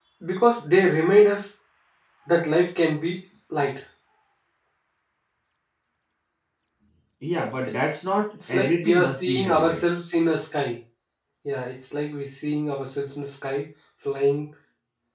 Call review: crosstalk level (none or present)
present